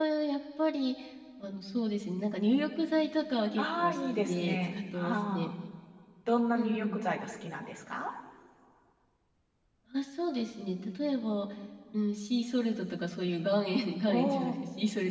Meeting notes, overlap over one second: present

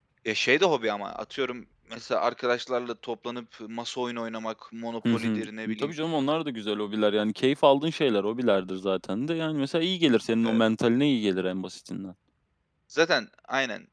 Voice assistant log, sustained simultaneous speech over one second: none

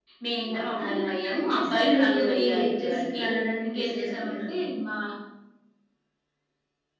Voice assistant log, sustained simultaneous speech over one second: present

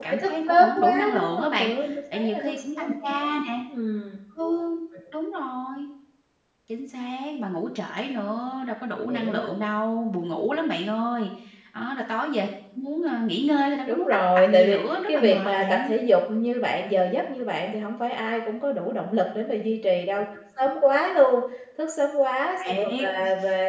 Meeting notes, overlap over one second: present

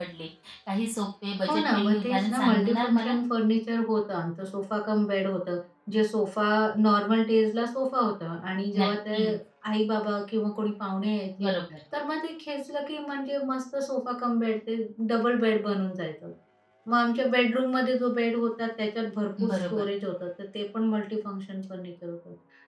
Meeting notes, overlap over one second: present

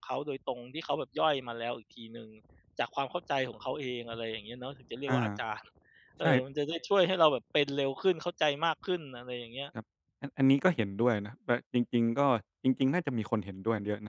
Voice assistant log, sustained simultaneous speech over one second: none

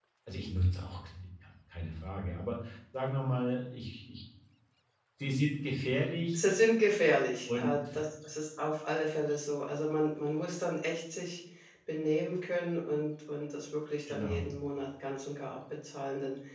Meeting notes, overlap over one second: none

